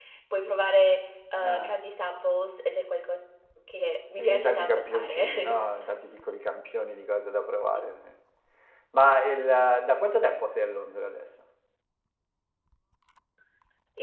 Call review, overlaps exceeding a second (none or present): present